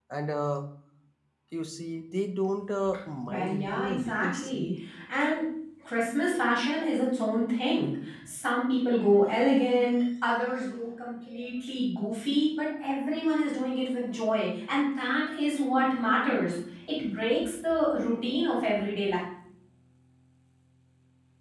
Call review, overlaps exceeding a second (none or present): present